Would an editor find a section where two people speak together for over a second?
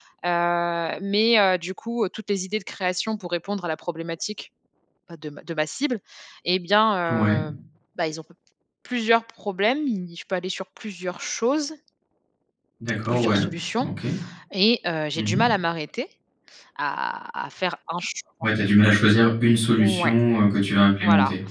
No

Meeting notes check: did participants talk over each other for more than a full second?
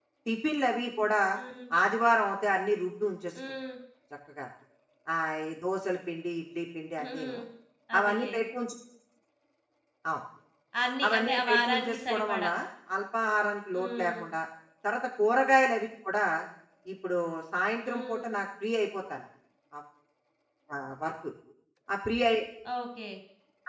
Yes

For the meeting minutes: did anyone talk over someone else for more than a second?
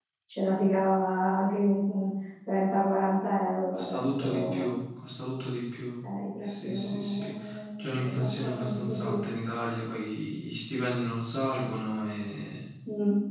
Yes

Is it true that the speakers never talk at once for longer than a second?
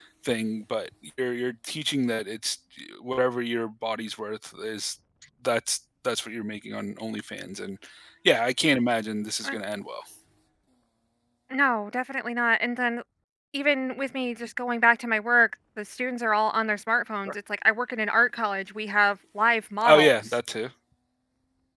Yes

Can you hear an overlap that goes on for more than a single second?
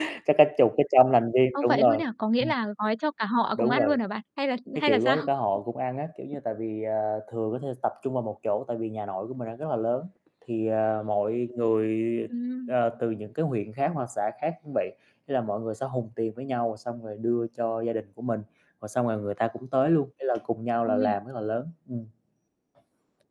No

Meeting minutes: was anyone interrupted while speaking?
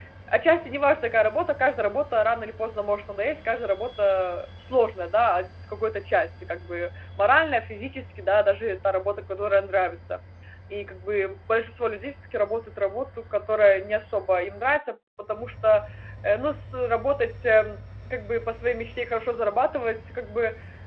No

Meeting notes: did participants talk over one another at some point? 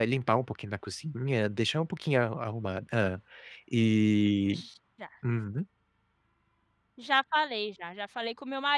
No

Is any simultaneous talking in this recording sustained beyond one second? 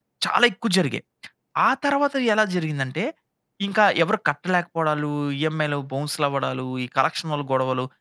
No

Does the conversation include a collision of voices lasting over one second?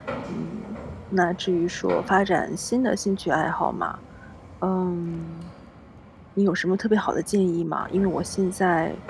No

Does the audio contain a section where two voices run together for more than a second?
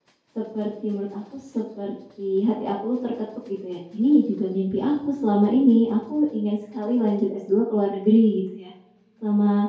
No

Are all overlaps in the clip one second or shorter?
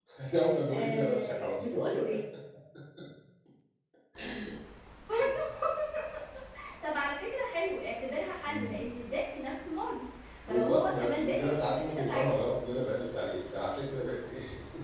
No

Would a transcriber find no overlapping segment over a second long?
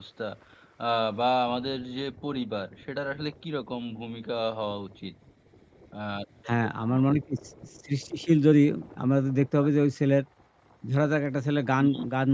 Yes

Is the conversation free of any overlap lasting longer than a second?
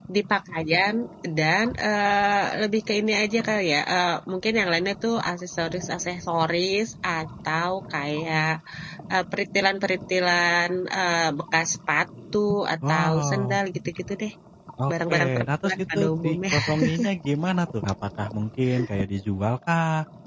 No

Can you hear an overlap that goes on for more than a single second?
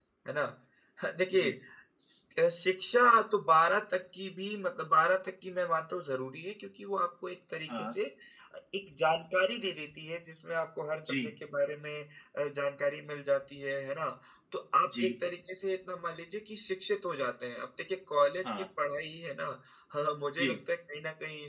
No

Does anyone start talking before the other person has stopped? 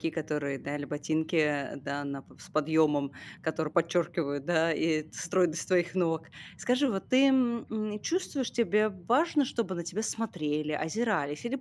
No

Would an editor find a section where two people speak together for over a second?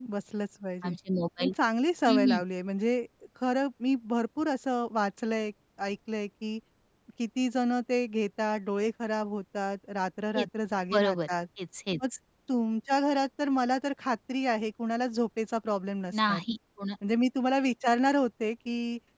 No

